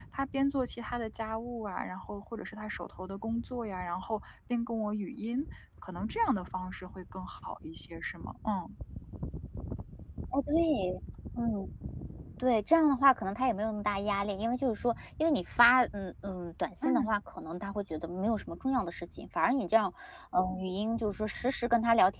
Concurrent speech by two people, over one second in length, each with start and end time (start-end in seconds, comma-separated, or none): none